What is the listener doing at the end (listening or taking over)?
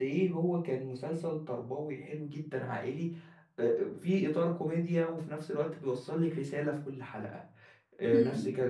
listening